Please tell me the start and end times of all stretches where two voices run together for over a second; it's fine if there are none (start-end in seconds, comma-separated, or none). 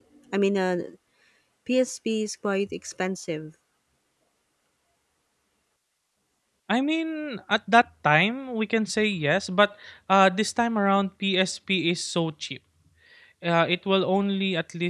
none